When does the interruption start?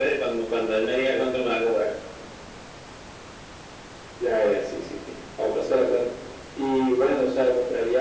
none

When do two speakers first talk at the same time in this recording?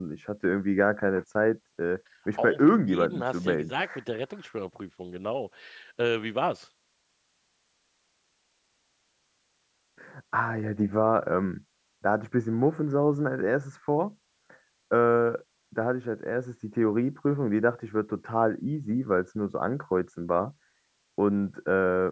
2.4 s

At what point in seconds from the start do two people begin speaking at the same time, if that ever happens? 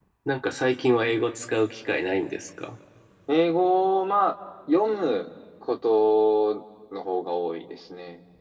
none

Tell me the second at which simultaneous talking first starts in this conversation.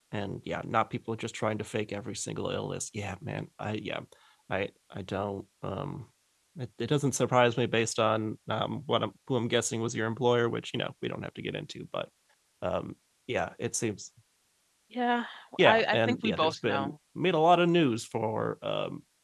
15.6 s

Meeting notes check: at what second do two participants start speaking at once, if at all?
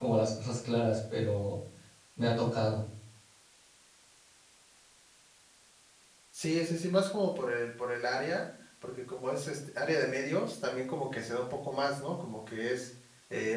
none

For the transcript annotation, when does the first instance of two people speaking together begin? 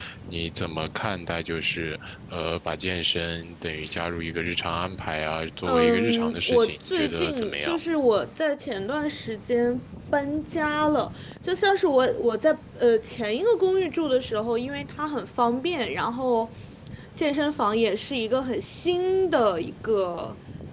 5.7 s

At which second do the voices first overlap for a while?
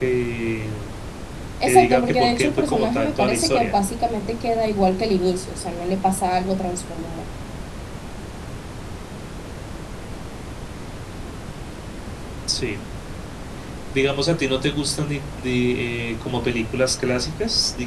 1.6 s

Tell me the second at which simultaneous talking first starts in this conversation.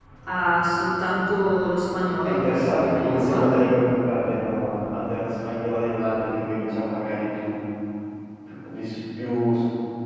2.2 s

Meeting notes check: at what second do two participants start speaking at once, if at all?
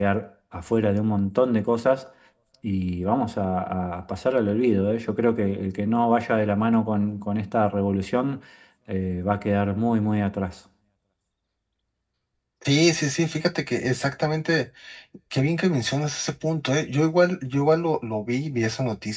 none

